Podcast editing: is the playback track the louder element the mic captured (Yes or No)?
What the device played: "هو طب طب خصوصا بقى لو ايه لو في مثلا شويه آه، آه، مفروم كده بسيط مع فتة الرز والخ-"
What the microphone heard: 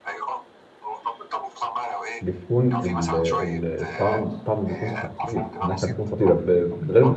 No